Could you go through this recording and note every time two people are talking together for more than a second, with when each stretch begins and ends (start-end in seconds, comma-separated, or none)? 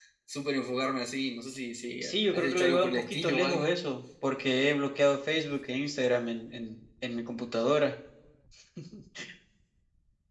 2.0-3.8